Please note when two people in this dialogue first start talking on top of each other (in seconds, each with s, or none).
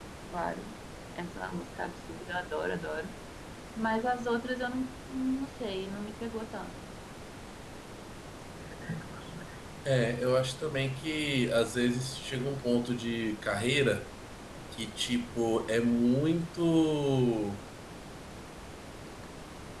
none